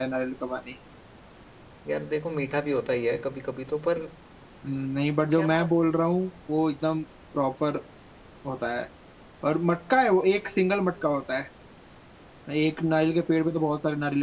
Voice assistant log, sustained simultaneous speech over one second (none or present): none